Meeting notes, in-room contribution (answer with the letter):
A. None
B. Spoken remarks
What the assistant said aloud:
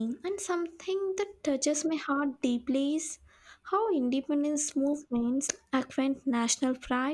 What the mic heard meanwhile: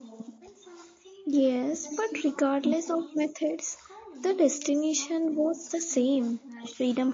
B